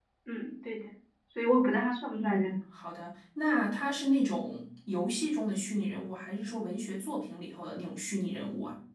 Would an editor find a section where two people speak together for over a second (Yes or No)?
No